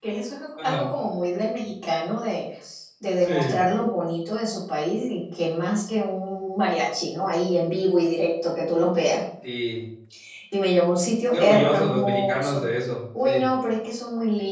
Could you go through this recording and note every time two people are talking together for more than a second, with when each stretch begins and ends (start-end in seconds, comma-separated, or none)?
11.3-12.6